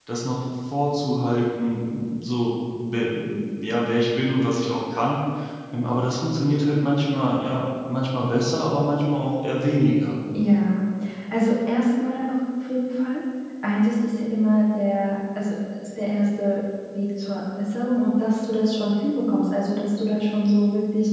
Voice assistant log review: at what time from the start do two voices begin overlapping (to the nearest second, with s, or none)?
none